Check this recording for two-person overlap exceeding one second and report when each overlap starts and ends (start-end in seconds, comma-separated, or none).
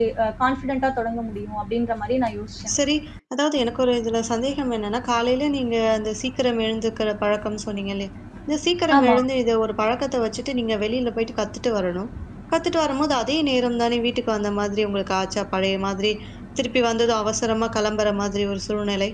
none